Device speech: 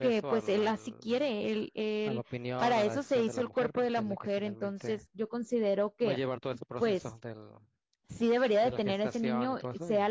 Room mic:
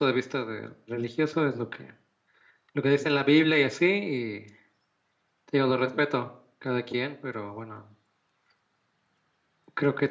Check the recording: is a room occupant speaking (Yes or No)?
Yes